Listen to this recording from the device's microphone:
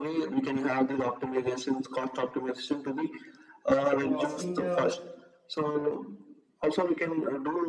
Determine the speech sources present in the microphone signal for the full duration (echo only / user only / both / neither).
both